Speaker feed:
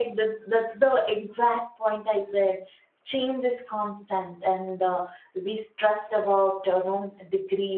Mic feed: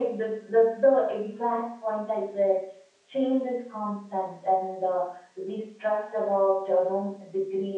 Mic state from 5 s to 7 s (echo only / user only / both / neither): echo only